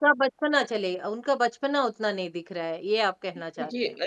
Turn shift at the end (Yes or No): Yes